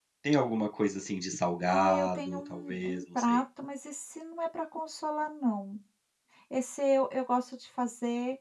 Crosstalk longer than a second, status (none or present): present